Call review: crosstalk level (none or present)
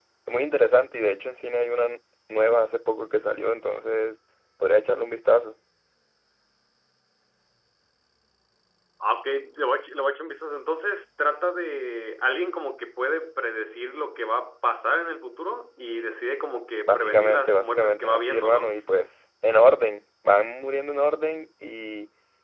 present